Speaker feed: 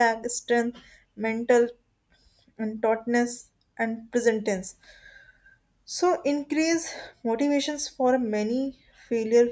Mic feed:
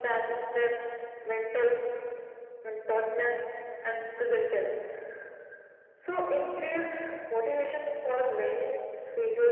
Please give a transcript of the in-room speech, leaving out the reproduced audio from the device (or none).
none